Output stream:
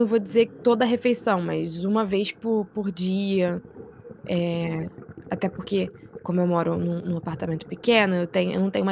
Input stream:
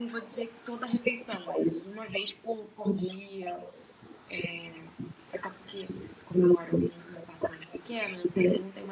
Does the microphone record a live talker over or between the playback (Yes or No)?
No